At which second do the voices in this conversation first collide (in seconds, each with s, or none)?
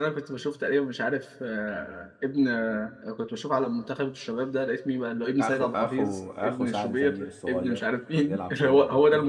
5.4 s